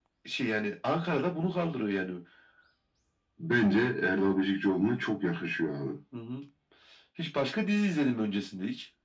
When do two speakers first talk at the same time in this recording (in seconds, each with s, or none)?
none